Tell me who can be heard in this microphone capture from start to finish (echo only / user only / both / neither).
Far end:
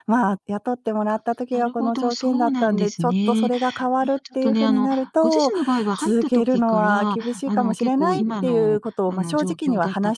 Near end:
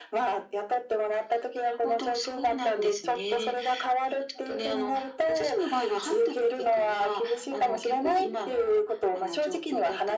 echo only